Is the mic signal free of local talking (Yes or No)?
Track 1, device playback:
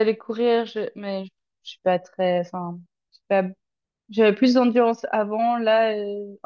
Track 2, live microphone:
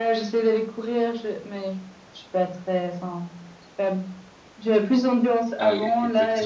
No